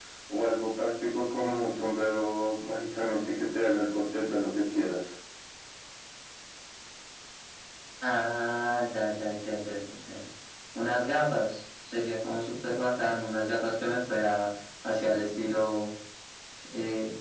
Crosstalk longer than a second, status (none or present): none